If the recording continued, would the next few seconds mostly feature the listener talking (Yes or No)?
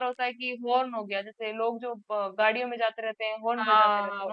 Yes